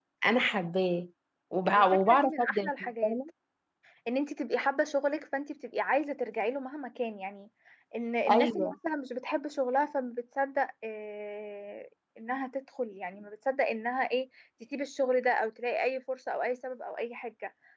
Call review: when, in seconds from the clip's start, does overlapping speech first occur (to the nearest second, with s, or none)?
2 s